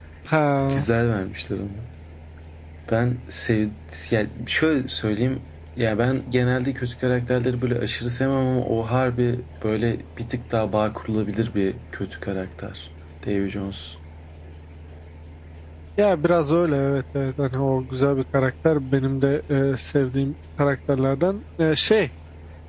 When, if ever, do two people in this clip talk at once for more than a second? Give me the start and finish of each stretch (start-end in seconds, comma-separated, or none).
none